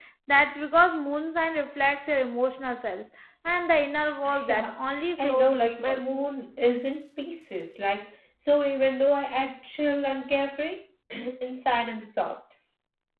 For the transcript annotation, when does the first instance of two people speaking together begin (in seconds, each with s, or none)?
4.2 s